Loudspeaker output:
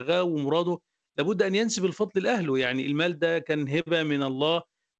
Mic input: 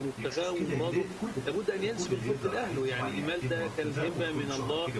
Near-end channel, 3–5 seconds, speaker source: both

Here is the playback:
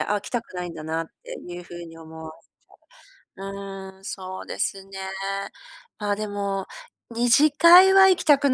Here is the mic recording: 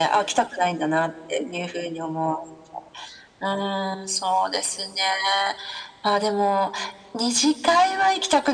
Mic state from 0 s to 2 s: echo only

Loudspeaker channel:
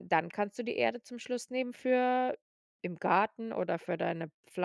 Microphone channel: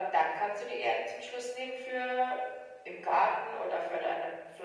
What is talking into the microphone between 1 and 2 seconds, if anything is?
echo only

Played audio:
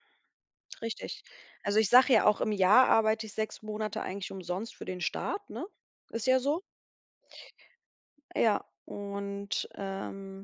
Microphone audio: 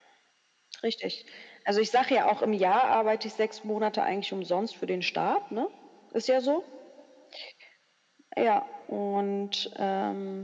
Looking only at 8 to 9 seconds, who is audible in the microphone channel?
echo only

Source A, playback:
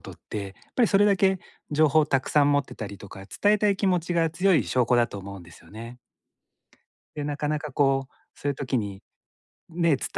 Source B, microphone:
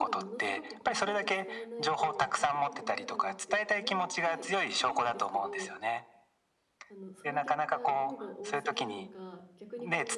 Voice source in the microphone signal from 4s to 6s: both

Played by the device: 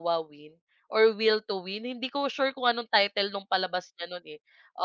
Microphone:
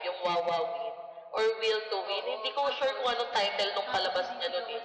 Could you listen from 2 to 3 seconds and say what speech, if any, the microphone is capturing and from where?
both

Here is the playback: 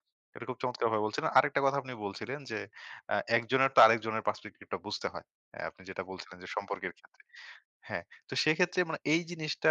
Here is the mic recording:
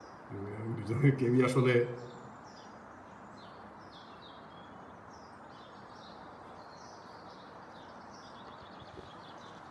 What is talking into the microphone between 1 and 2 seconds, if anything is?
user only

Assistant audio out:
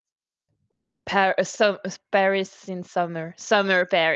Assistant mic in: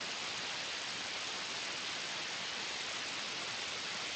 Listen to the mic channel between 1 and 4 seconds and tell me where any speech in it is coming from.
neither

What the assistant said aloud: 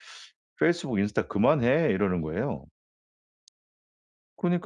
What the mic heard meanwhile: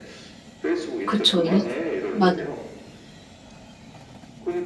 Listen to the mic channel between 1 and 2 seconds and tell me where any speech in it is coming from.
both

